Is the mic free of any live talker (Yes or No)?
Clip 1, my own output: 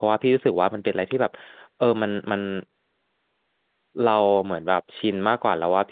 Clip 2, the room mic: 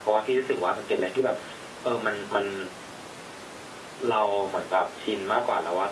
Yes